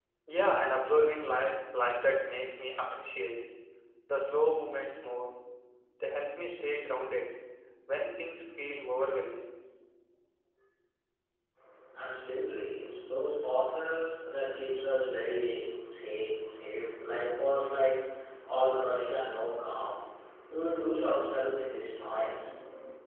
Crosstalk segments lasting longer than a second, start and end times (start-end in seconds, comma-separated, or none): none